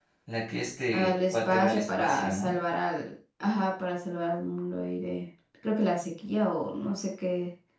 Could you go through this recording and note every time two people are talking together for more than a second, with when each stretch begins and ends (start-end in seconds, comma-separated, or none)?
0.9-2.6